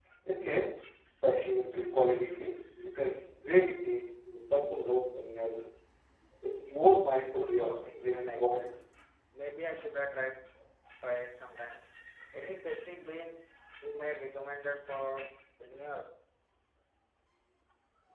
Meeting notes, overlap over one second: present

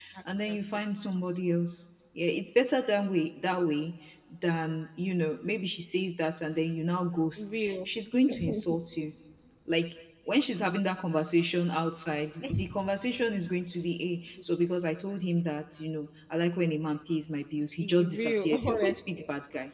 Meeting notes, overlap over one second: present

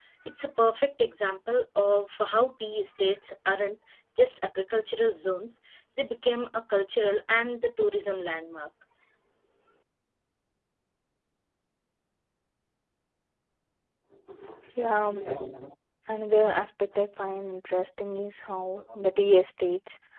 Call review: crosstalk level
none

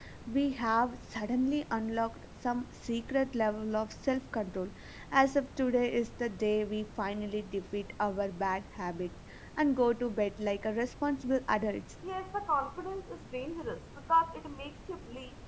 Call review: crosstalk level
none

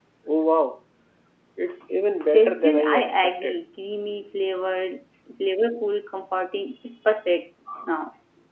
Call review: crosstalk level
present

